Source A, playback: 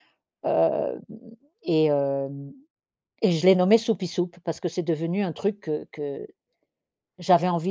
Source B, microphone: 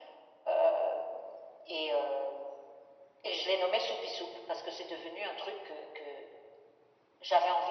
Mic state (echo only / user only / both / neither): echo only